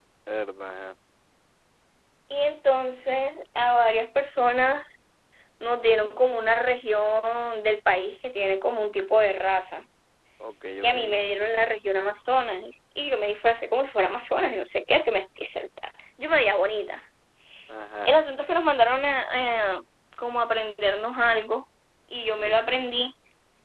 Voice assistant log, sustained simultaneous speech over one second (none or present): none